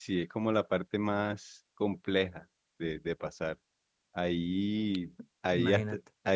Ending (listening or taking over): listening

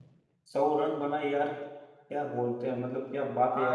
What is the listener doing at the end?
taking over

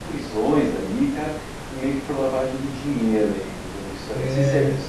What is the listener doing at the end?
taking over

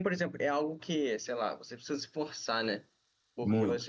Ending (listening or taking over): listening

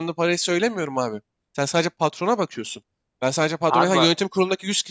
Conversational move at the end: listening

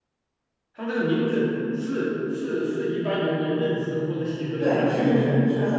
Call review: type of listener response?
taking over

